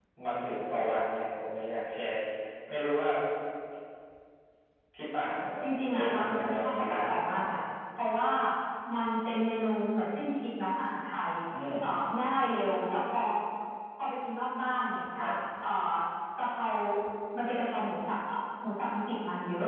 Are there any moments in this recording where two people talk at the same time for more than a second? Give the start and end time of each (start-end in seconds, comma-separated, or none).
5.9-7.4